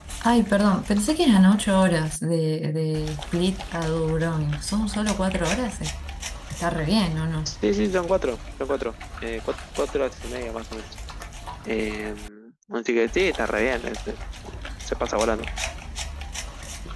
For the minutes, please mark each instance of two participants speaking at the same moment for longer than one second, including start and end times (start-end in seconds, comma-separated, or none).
none